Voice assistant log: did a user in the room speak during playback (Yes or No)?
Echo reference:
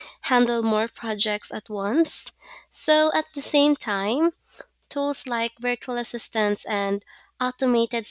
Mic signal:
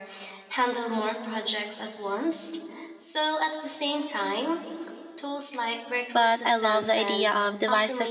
Yes